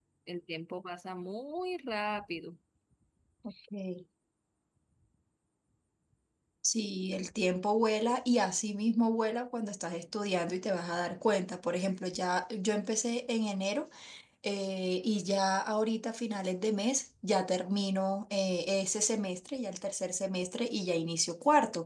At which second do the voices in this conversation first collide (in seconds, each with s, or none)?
none